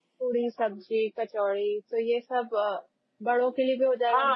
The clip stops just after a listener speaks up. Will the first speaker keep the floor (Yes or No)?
No